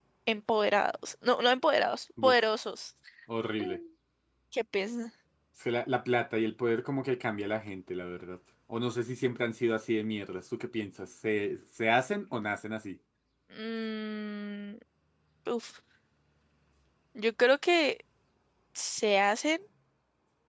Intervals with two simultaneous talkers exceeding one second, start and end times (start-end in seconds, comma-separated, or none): none